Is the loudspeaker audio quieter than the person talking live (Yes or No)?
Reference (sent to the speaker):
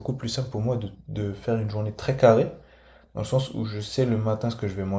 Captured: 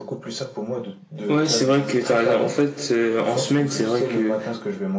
Yes